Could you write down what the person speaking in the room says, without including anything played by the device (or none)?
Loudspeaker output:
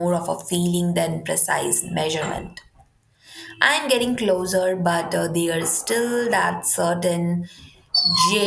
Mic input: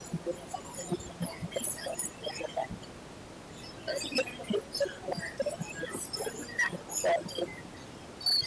none